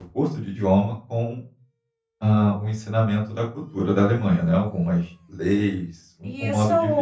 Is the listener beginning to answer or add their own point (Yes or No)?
Yes